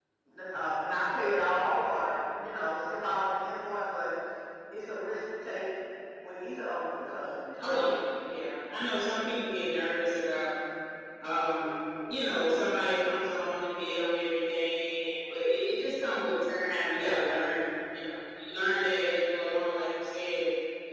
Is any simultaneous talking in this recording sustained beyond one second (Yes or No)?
No